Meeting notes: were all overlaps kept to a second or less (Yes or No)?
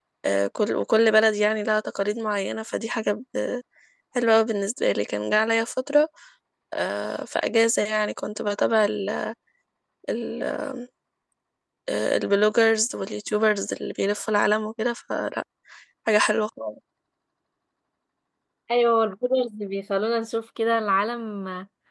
Yes